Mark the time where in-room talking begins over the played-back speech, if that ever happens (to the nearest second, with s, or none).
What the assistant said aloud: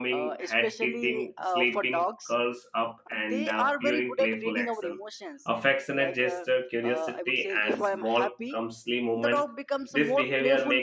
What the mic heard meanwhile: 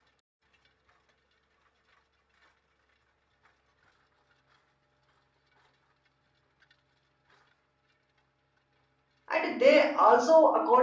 9 s